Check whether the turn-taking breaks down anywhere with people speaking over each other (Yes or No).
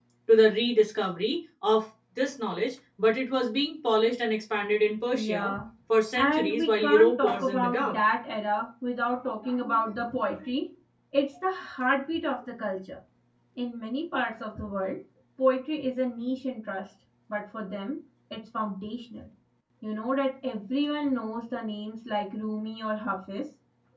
Yes